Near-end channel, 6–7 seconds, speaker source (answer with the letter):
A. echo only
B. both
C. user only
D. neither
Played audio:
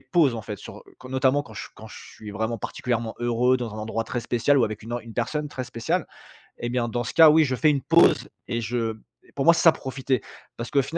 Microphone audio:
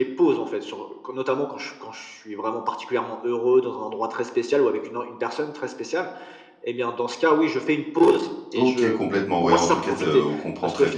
A